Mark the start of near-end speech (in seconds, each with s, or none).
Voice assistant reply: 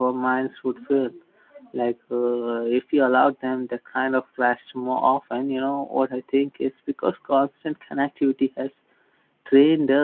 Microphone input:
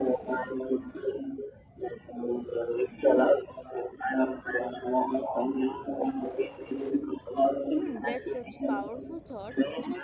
7.7 s